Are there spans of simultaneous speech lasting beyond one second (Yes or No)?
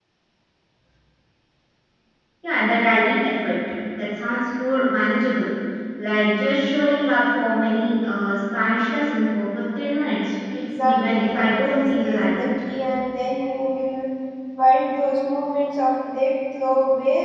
Yes